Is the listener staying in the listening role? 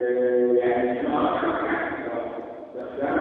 Yes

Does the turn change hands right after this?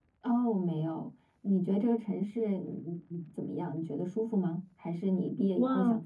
Yes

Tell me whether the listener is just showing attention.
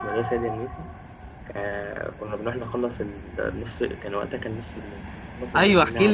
No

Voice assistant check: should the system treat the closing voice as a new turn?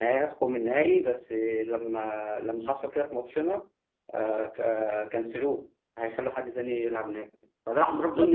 No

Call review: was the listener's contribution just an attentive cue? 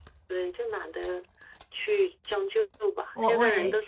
No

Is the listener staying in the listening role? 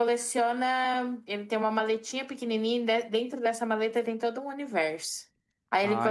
Yes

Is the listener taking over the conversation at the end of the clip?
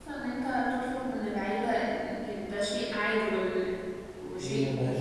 Yes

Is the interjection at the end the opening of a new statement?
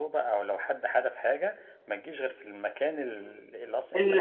No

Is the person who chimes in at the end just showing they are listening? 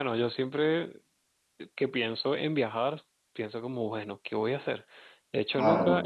Yes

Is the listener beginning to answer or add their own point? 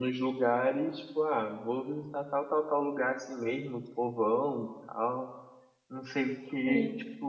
No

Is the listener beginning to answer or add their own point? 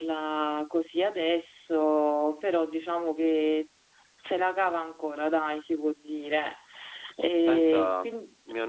Yes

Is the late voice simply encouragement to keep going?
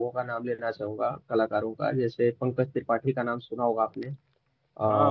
No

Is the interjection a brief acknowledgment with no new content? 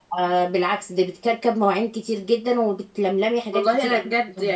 No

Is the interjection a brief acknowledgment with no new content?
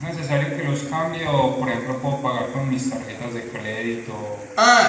No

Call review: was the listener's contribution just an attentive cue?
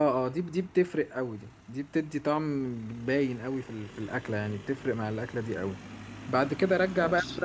Yes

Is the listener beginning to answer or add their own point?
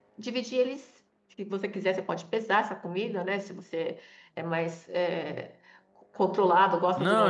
Yes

